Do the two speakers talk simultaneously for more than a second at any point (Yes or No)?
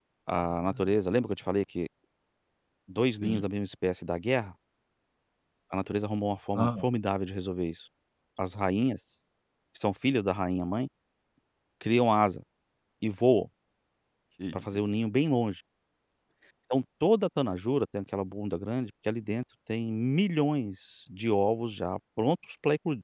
No